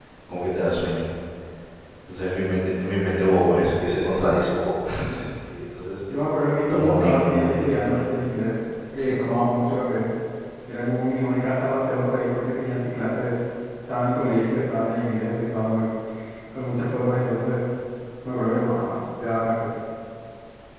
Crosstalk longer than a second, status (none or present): present